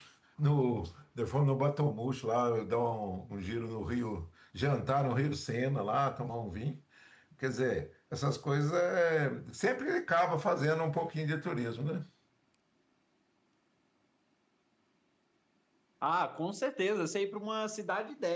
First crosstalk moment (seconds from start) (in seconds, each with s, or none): none